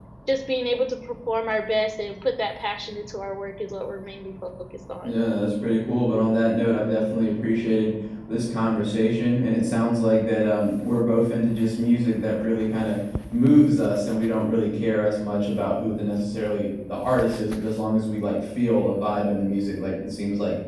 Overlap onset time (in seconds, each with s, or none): none